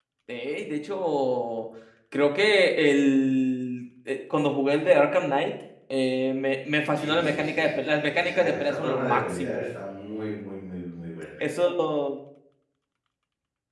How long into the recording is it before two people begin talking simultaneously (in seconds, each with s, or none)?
7.0 s